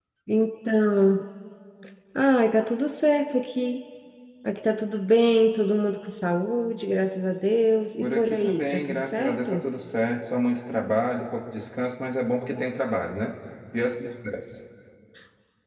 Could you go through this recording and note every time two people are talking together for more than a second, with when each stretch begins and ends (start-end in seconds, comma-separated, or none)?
8.0-9.6